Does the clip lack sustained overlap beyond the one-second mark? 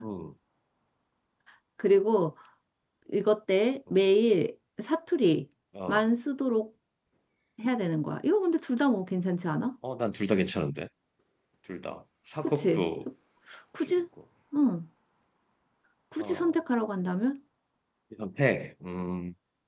Yes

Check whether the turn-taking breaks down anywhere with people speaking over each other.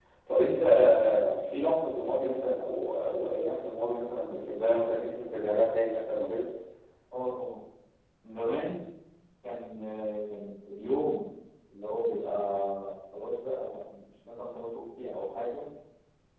No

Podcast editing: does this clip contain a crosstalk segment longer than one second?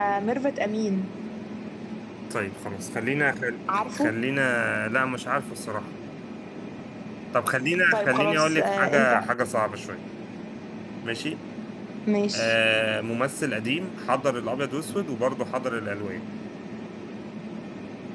Yes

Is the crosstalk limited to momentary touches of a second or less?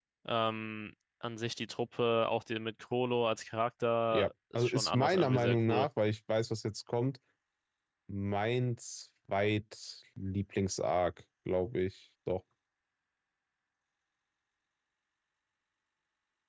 No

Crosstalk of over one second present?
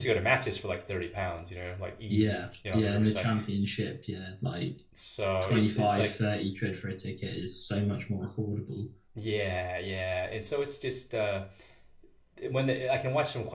Yes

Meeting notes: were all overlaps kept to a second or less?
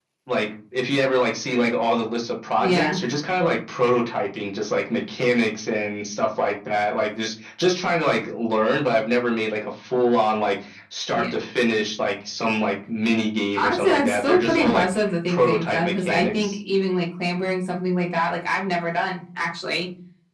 No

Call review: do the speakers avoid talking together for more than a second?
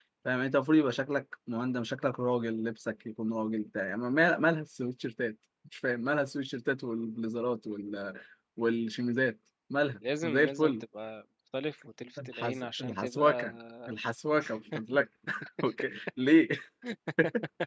No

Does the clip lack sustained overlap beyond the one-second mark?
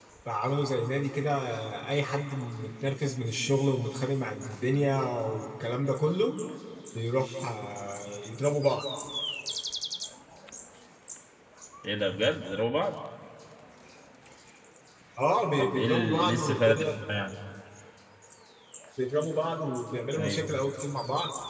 No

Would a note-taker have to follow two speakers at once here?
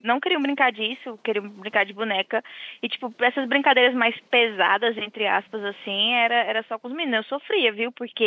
No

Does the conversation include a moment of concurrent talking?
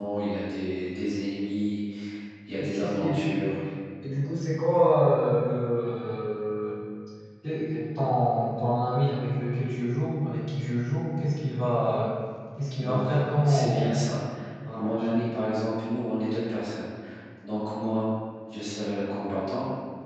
Yes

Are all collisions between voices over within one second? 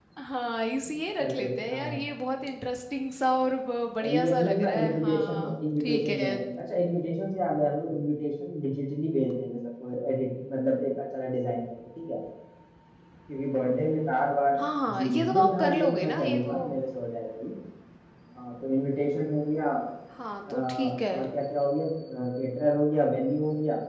No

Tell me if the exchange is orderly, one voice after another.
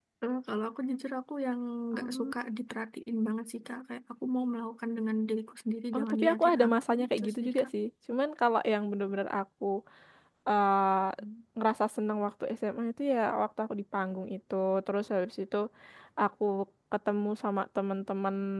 No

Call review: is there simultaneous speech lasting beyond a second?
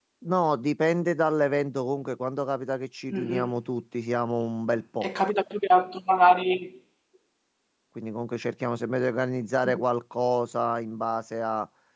No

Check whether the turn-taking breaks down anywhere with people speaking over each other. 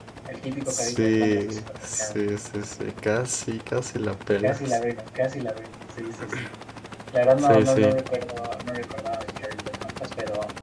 Yes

